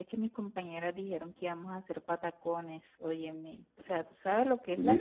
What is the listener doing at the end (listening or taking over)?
taking over